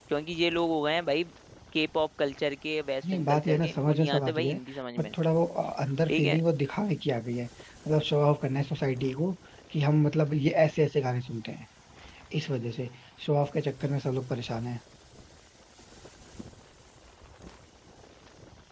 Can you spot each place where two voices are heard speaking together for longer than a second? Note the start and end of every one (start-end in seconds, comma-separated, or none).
3.1-4.6